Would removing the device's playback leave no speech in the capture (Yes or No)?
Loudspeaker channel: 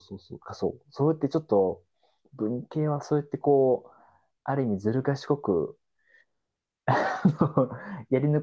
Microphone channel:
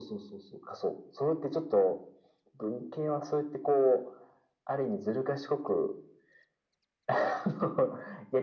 Yes